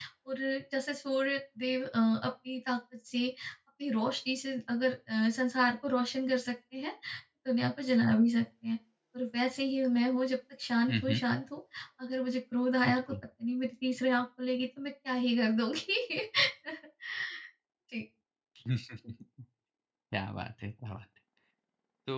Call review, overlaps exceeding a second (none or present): none